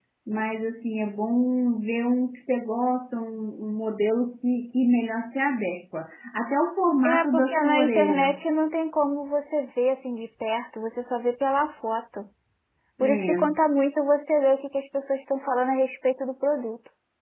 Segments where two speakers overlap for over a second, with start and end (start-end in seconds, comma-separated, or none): 7.0-8.4